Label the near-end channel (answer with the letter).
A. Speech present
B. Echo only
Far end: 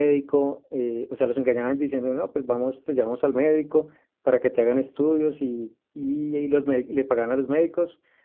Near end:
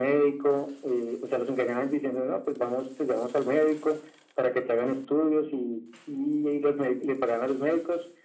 B